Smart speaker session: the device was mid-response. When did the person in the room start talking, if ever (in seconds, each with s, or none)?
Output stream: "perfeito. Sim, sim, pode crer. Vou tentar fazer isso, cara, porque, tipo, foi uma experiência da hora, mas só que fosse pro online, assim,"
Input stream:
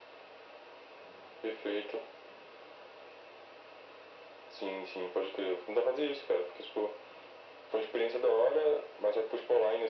none